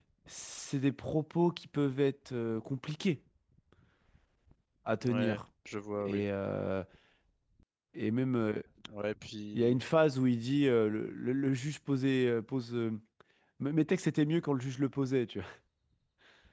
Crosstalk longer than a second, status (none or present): none